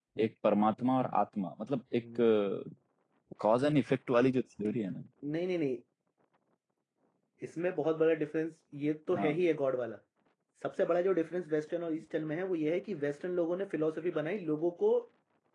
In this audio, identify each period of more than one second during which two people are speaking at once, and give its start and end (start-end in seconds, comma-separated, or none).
none